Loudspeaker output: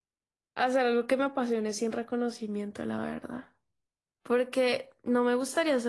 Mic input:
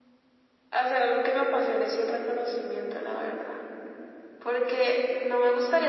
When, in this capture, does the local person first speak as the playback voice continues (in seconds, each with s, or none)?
none